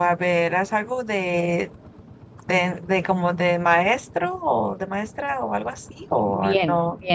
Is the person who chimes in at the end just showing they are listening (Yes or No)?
No